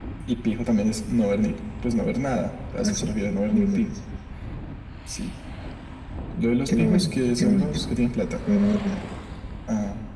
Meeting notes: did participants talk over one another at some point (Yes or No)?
Yes